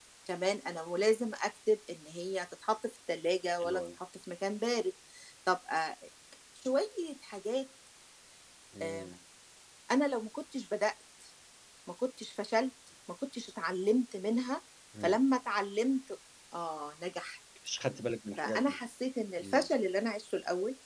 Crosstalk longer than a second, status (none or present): none